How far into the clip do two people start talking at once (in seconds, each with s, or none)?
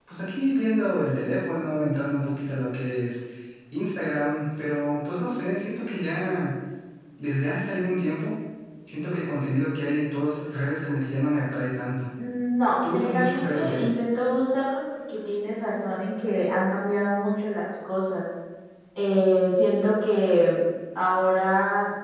12.8 s